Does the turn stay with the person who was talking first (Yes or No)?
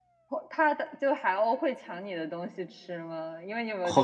No